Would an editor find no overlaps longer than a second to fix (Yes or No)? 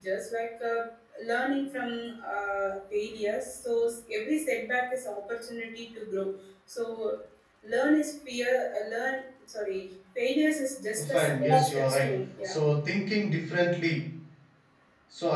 No